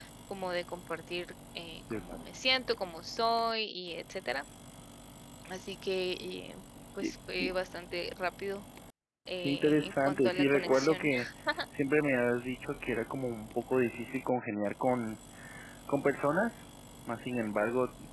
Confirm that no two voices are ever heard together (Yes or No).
No